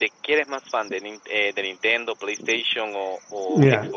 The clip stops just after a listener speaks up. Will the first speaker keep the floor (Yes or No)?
No